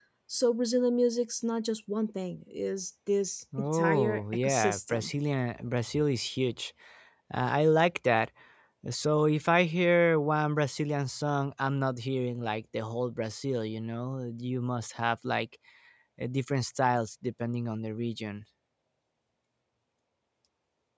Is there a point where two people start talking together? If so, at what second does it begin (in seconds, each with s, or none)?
3.5 s